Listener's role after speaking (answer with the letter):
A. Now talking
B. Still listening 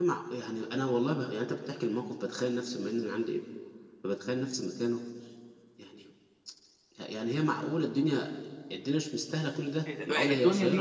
A